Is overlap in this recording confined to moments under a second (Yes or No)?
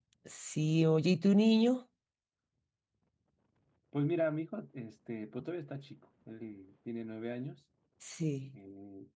Yes